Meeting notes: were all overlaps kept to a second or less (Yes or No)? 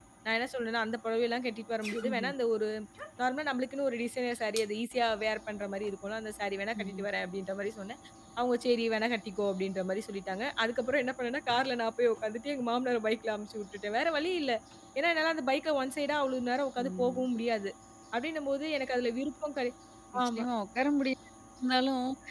Yes